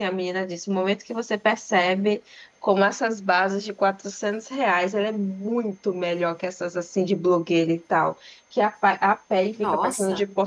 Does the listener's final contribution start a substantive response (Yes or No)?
No